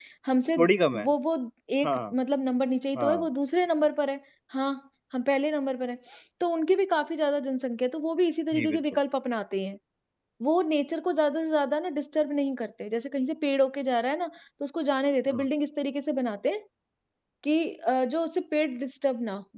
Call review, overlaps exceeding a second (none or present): none